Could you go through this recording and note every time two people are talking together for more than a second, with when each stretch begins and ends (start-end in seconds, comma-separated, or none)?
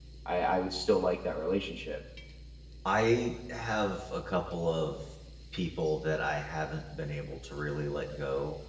none